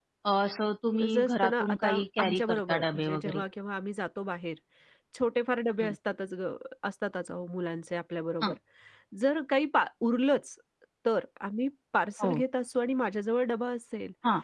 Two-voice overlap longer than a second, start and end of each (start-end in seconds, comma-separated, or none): 1.0-3.4